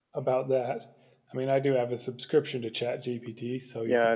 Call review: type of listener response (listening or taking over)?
taking over